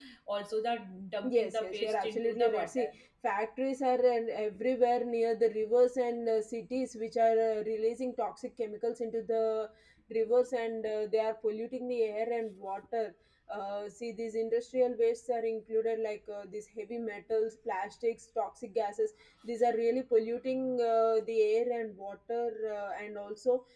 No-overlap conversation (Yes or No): No